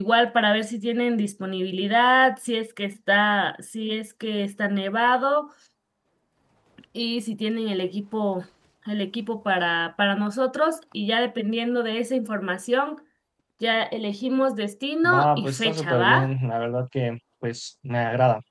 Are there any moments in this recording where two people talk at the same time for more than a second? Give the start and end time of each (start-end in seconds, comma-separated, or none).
15.0-16.3